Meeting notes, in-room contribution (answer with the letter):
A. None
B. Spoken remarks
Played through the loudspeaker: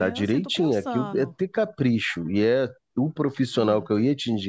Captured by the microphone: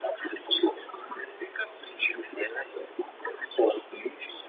A